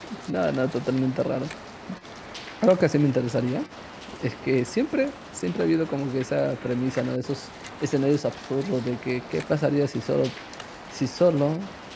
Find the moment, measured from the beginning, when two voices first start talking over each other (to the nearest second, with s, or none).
none